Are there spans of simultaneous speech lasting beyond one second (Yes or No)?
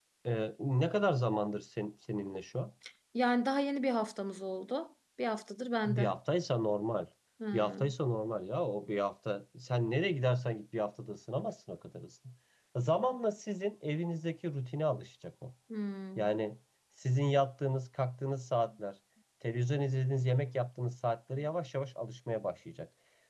No